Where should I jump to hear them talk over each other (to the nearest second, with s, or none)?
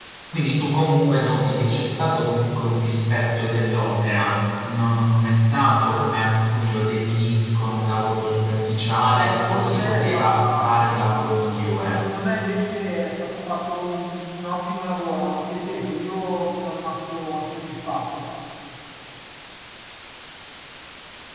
9 s